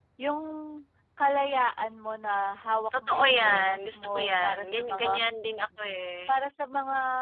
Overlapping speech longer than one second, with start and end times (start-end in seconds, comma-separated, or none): 3.1-5.1